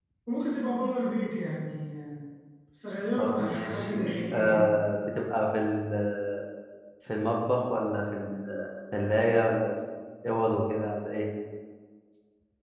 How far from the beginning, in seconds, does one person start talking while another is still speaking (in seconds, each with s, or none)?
3.2 s